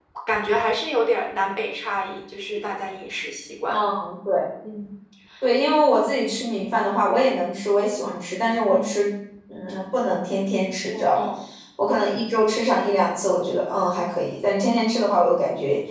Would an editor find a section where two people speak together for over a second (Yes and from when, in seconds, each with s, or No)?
No